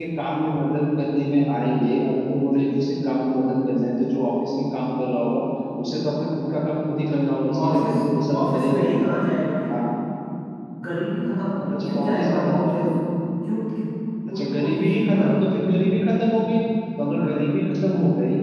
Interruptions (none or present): present